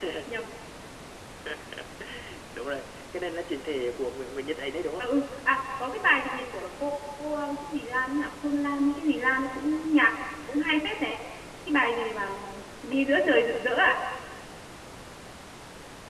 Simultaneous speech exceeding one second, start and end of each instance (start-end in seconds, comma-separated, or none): none